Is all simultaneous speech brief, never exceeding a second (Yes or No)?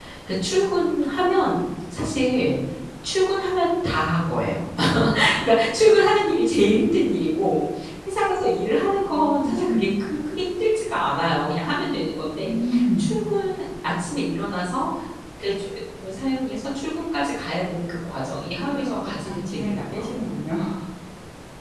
No